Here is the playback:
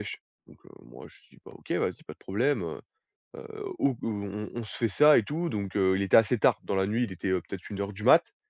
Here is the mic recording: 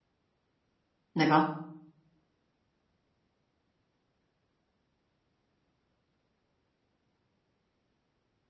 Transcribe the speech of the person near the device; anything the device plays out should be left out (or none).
D'accord,